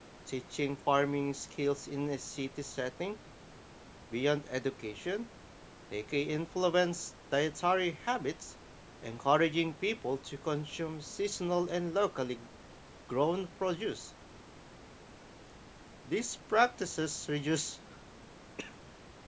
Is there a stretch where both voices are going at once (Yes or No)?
No